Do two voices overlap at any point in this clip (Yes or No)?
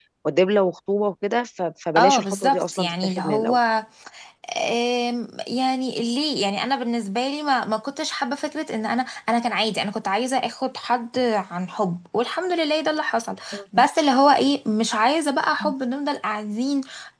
Yes